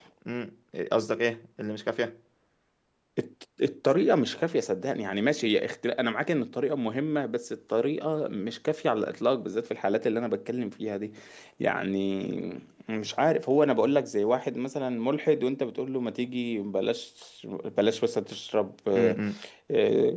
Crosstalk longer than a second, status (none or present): none